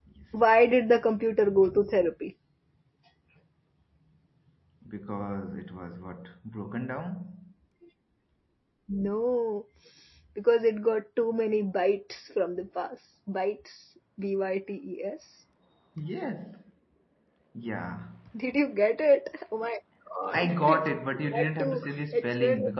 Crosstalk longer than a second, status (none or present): present